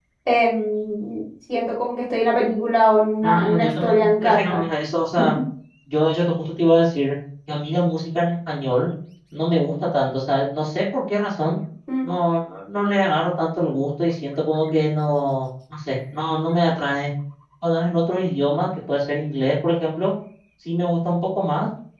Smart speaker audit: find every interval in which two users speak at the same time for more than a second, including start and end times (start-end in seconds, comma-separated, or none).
3.2-4.6